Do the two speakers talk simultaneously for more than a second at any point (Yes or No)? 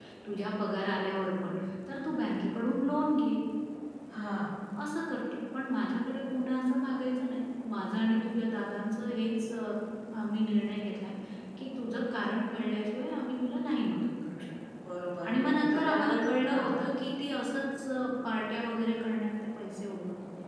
Yes